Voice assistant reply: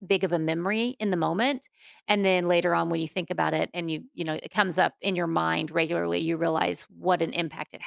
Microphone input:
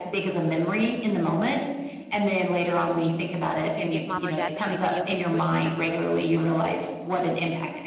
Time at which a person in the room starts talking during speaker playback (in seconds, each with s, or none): 3.6 s